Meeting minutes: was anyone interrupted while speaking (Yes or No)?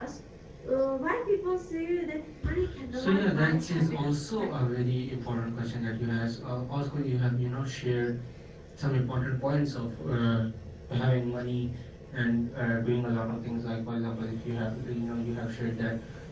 Yes